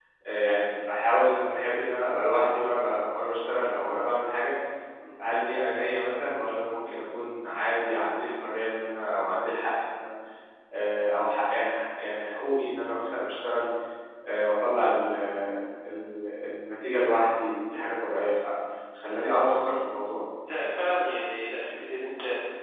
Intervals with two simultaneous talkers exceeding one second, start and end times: none

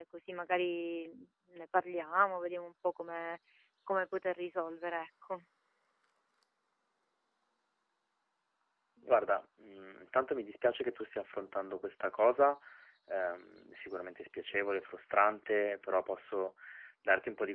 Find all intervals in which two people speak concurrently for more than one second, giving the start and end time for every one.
none

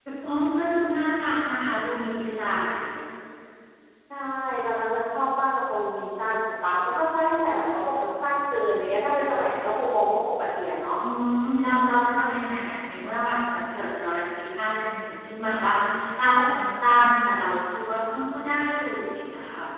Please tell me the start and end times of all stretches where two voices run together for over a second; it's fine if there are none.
none

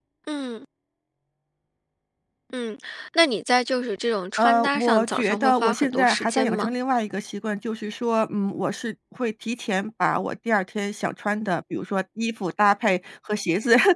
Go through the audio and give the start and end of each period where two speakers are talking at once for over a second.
4.4-6.7

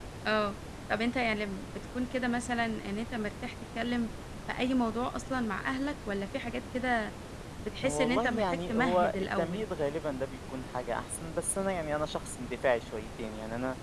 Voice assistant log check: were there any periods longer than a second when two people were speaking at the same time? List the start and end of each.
7.8-9.6

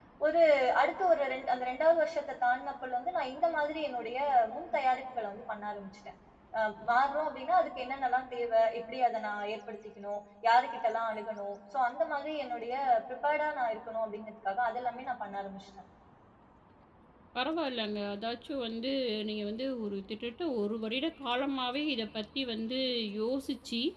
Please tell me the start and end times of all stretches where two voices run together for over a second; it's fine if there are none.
none

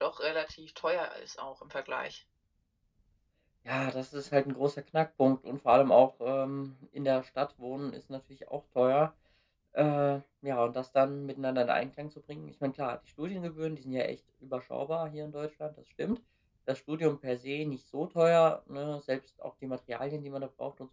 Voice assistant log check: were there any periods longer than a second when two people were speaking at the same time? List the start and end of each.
none

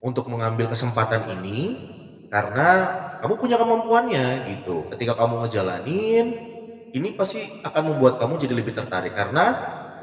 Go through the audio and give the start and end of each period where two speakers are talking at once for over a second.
none

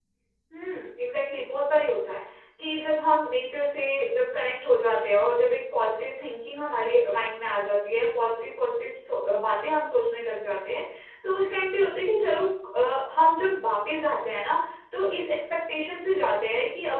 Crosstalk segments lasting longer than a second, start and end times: none

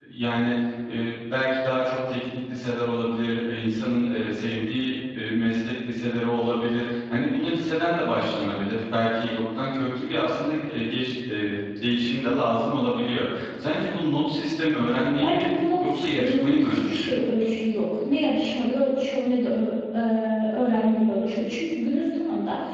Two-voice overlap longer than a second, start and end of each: 15.2-17.2

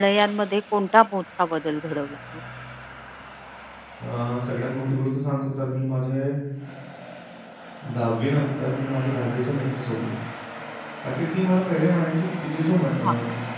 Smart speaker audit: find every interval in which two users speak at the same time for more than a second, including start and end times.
none

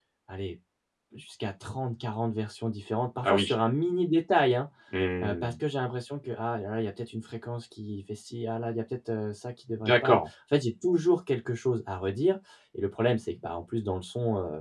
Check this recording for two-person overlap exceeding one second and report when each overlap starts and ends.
none

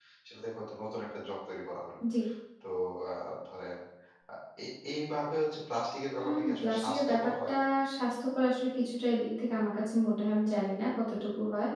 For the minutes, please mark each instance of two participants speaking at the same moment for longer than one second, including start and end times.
6.2-7.5

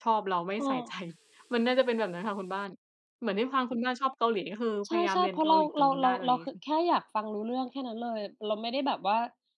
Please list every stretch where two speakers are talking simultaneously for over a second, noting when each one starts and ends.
4.9-6.4

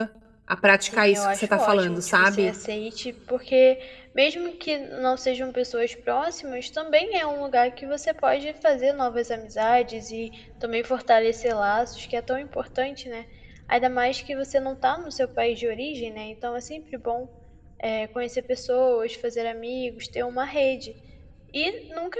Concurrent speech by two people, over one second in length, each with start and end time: 0.9-2.5

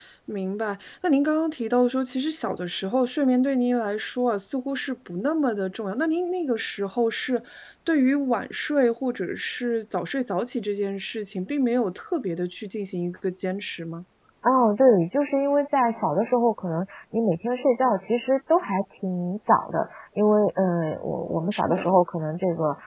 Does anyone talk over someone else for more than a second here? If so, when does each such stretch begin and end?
none

